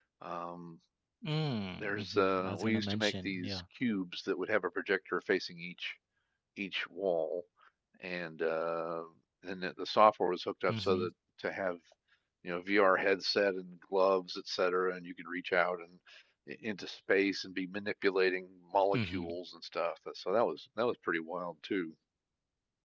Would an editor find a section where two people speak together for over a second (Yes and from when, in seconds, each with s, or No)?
Yes, from 1.8 s